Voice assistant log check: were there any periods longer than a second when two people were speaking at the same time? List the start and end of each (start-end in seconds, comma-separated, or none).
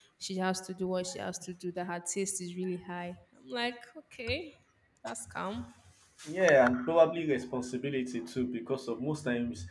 none